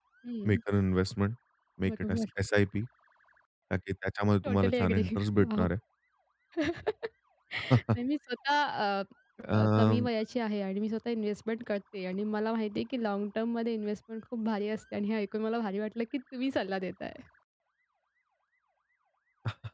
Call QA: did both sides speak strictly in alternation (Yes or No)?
No